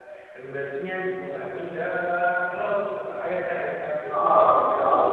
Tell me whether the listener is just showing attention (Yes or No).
No